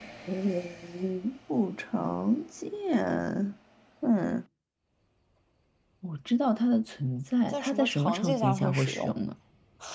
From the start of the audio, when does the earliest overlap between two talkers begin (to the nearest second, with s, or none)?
8 s